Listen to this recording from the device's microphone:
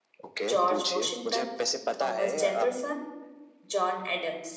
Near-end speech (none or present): present